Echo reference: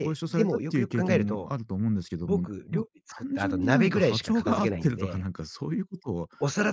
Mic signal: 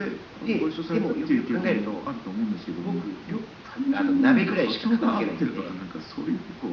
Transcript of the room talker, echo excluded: none

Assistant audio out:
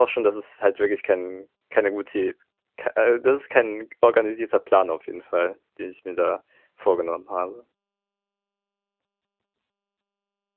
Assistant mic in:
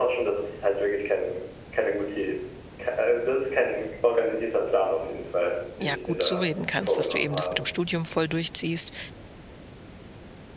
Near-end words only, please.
ja, gut zureden kannst, dass du eben das mit dem Studium voll durchziehst.

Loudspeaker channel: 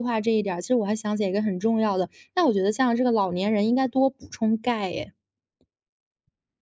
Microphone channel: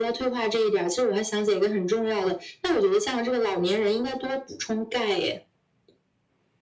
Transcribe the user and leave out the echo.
none

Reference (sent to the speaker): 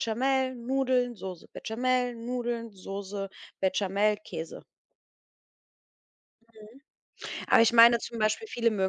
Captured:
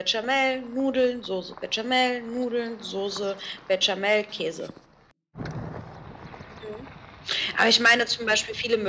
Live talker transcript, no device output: none

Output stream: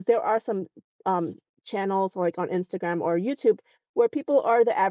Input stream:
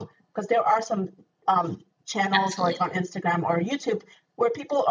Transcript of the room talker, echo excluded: absolutely.

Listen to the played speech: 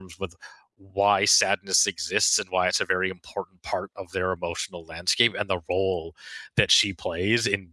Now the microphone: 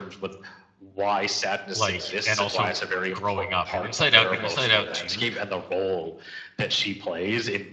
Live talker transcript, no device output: like, and also g- growing up. And Inside Out and Inside Out Two

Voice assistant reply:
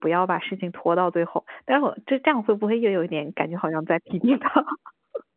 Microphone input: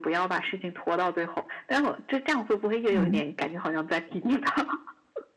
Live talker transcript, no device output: 嗯

